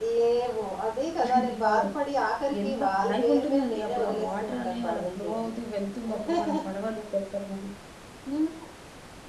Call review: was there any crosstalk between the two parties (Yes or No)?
Yes